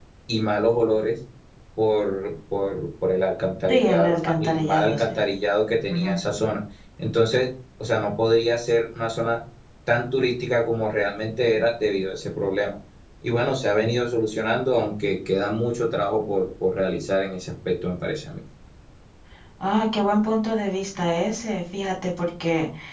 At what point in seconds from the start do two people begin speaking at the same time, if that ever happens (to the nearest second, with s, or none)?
4 s